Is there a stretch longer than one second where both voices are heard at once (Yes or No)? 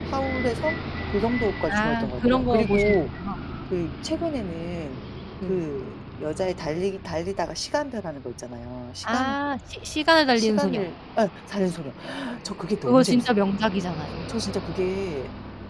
Yes